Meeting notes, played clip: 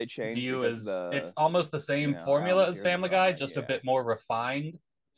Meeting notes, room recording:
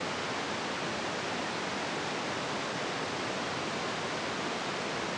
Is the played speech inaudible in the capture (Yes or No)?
Yes